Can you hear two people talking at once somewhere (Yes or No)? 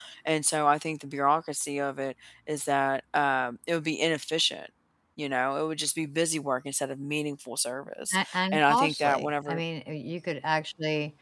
Yes